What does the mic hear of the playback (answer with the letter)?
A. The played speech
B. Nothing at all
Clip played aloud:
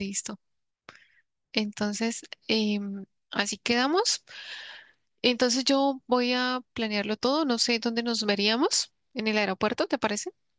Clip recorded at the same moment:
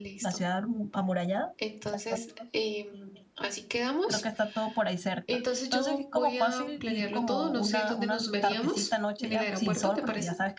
A